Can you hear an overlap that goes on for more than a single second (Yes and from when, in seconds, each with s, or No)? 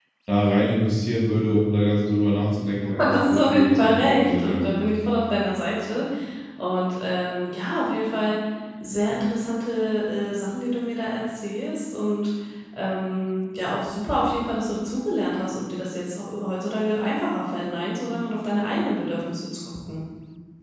Yes, from 2.8 s